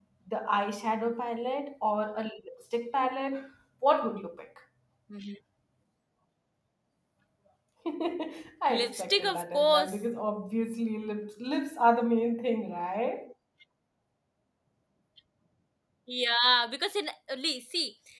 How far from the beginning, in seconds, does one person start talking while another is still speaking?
8.7 s

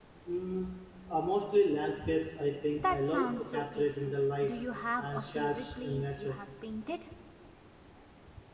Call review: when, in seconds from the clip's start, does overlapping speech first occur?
2.8 s

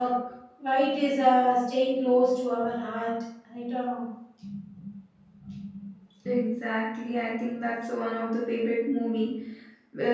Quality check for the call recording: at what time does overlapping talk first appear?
none

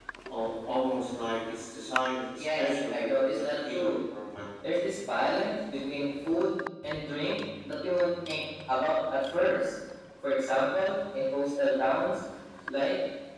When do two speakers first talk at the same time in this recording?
2.4 s

